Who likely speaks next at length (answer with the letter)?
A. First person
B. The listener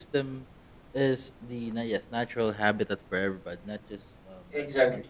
A